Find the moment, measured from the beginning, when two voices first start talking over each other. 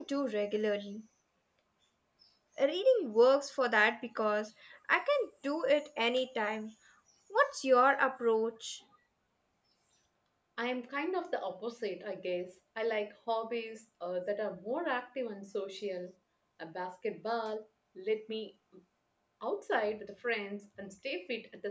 none

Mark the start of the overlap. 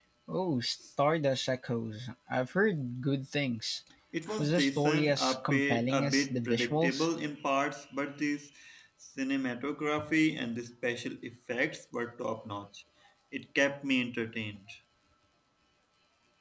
4.4 s

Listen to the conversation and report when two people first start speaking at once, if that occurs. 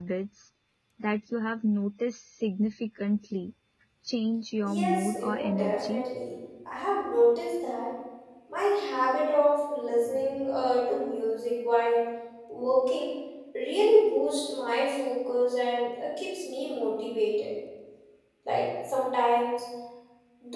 4.6 s

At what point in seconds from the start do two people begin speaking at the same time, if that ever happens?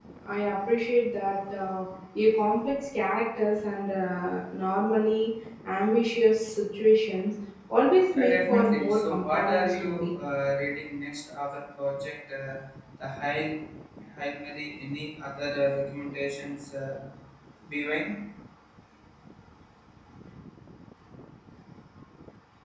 8.2 s

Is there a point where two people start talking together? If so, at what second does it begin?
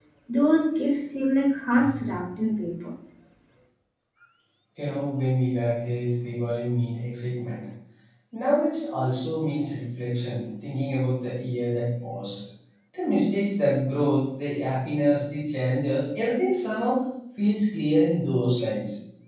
none

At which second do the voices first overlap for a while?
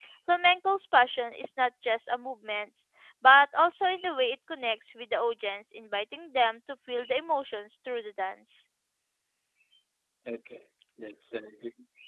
none

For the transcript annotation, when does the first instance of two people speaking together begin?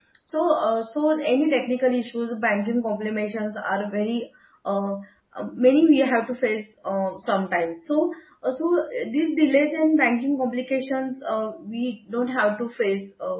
none

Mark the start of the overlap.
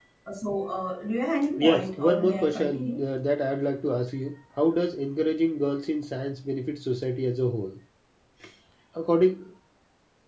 1.5 s

